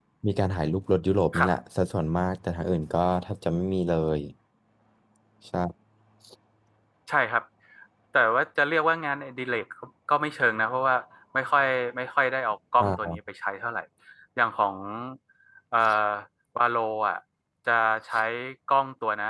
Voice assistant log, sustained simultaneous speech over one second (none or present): none